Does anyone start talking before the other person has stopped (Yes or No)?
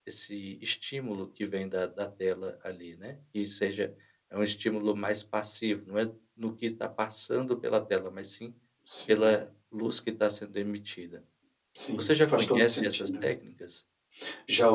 Yes